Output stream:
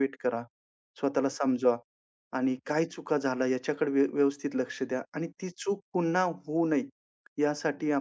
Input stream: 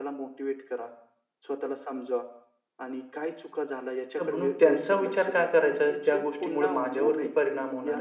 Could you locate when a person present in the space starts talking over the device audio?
4.2 s

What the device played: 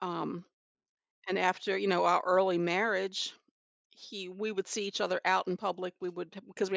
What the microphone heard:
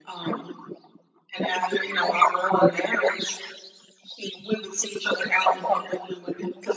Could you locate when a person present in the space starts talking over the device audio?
none

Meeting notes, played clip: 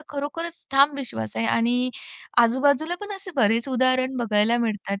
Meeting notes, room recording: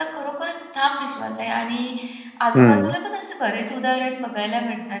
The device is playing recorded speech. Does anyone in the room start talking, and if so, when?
2.5 s

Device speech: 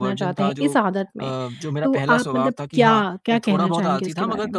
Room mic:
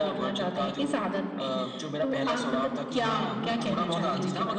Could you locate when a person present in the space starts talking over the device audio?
3.0 s

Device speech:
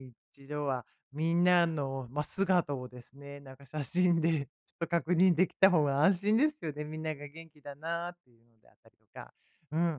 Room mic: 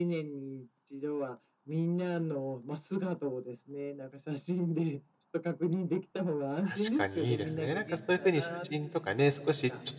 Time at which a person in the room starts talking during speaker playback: 6.6 s

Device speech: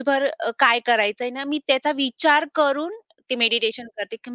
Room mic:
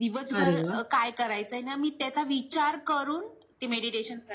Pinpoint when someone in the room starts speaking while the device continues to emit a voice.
0.4 s

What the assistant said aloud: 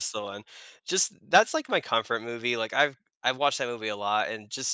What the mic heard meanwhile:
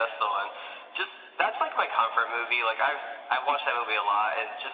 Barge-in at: none

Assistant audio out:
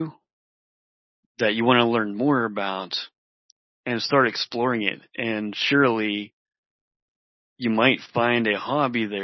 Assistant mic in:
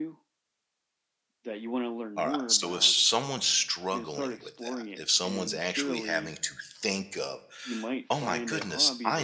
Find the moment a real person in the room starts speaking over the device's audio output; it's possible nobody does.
2.2 s

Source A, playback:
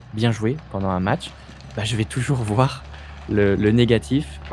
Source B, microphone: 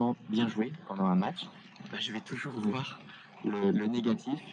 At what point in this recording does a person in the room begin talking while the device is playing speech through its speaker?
none

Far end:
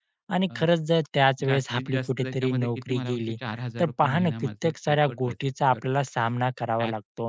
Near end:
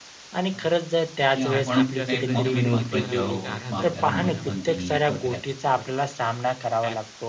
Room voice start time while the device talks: 1.3 s

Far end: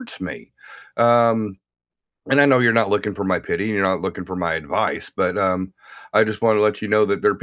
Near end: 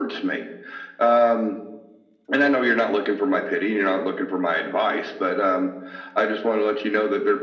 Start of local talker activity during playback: none

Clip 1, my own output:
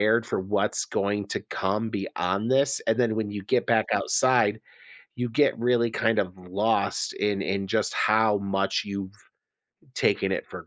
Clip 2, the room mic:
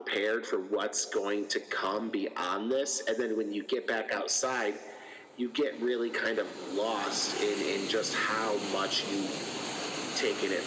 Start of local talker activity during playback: none

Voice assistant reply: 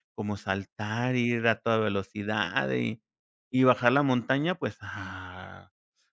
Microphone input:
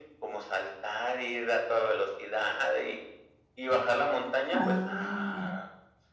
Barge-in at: 4.6 s

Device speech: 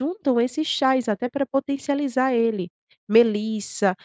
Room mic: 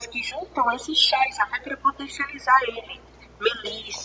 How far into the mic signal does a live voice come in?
none

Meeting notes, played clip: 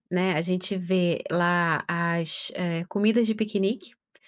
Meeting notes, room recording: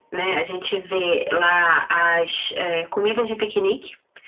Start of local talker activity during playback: none

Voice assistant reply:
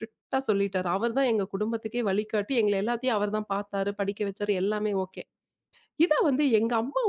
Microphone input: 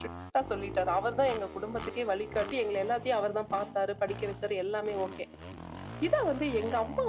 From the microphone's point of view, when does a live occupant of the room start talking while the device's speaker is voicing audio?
none

